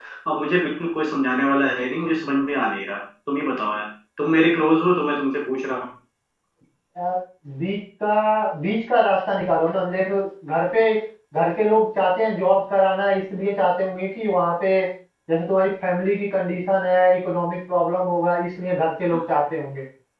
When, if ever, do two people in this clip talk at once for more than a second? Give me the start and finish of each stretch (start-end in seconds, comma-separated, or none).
none